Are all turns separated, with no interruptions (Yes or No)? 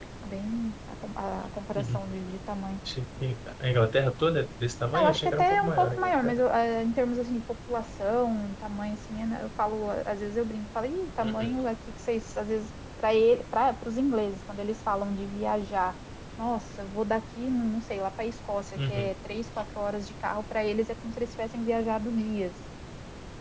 No